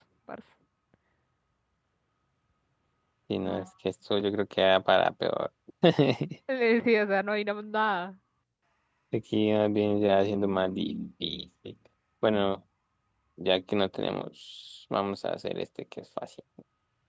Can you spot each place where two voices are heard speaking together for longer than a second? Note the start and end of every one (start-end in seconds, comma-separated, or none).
none